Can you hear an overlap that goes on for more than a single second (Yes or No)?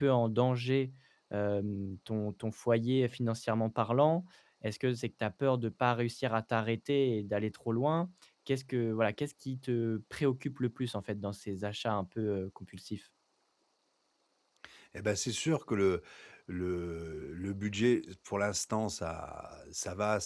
No